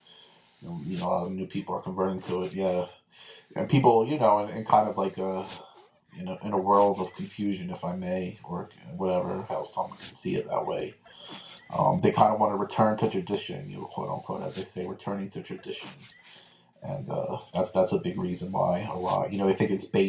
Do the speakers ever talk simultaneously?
No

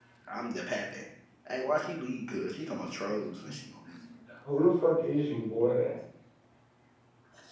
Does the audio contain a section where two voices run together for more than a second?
No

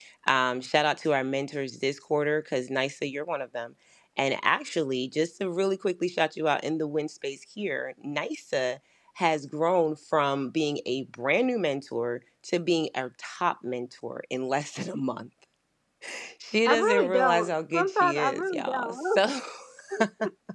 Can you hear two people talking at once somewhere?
Yes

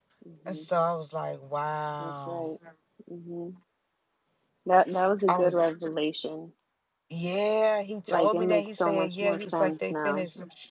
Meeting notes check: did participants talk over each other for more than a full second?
Yes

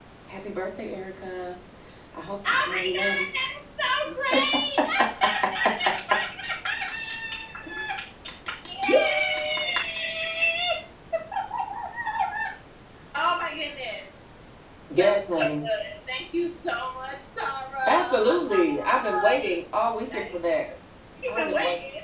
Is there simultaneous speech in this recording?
Yes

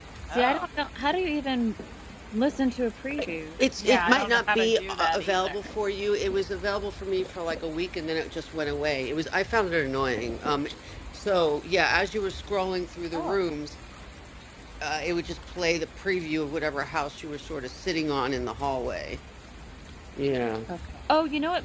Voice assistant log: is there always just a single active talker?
No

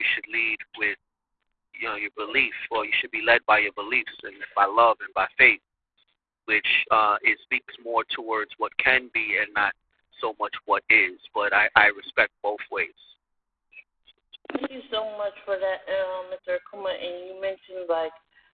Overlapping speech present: No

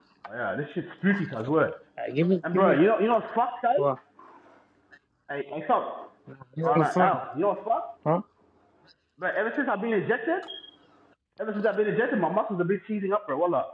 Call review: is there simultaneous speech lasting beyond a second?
No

